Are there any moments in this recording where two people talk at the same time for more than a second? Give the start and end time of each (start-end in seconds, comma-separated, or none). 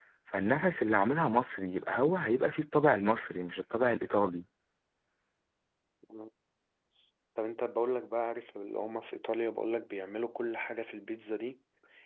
none